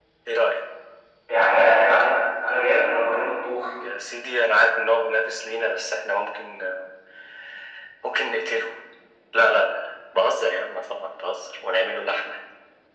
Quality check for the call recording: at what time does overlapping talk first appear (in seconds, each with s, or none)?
none